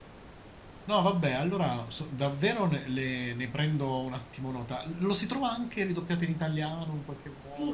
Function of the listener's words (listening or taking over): taking over